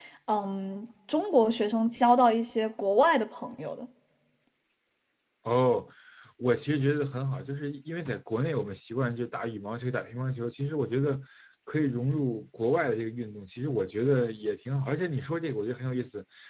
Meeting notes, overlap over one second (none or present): none